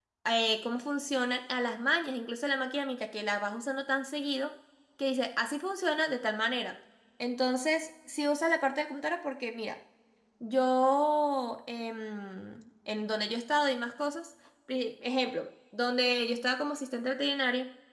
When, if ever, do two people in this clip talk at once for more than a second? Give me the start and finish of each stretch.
none

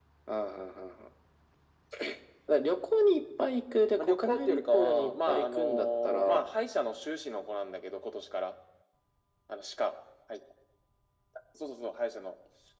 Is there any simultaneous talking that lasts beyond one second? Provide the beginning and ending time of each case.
4.0-6.4

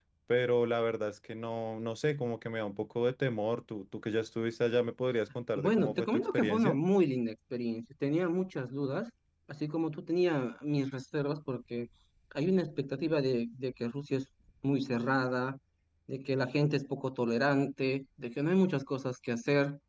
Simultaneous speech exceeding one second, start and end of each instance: 5.5-6.8

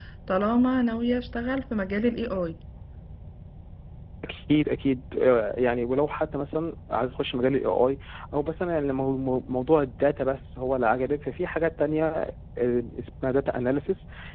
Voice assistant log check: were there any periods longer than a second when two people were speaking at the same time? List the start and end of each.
none

